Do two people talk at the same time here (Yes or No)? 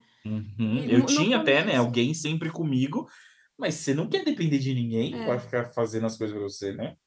Yes